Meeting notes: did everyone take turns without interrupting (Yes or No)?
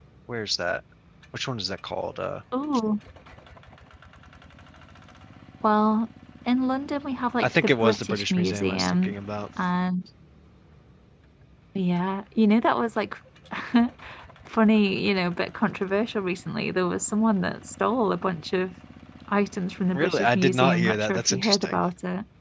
No